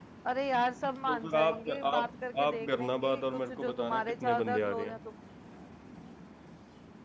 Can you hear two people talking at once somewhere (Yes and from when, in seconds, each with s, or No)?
Yes, from 1.1 s